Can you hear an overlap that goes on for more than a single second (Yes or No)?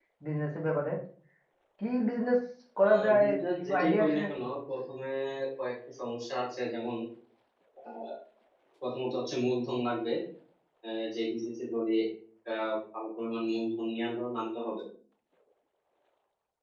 Yes